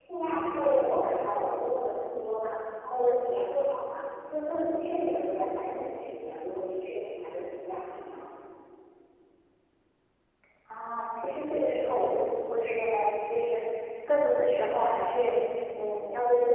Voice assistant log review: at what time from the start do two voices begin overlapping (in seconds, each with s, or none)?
none